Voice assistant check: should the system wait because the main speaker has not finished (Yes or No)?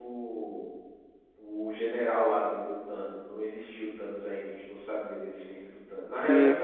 Yes